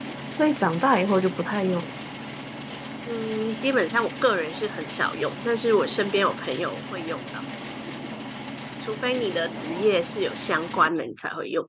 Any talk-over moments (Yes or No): No